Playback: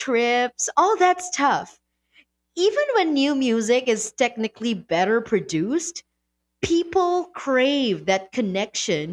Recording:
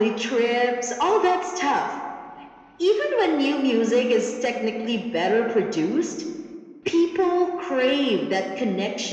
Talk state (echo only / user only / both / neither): echo only